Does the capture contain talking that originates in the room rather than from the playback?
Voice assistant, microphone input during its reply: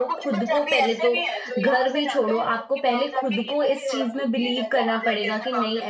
Yes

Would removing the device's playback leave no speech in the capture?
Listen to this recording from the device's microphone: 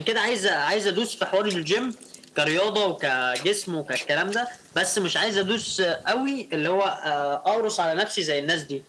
Yes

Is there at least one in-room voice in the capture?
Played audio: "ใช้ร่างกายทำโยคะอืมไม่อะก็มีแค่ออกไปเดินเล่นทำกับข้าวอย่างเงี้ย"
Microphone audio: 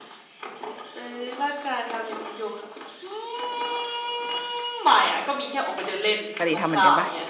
Yes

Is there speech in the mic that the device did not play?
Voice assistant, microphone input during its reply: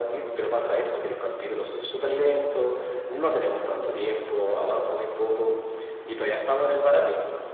No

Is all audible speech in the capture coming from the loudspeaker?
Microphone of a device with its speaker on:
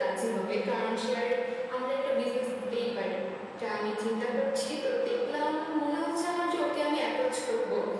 Yes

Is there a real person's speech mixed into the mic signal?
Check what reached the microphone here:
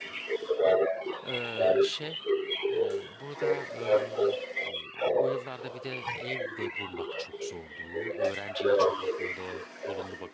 Yes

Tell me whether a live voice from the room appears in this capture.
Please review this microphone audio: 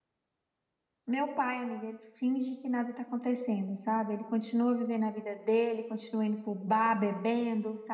Yes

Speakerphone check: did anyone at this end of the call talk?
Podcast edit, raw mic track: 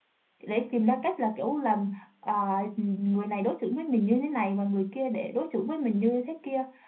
Yes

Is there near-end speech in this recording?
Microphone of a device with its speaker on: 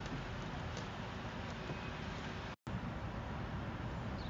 No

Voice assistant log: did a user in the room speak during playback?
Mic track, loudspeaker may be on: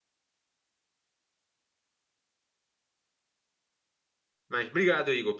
Yes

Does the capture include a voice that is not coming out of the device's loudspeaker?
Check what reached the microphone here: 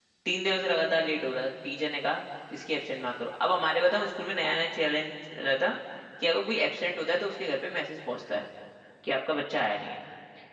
Yes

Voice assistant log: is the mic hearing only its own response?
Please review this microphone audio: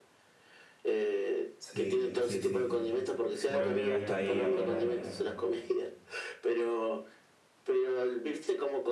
No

